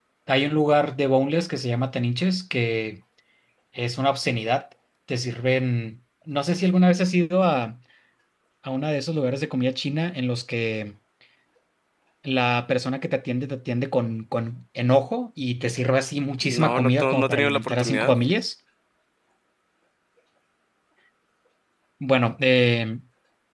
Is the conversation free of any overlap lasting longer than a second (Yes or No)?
No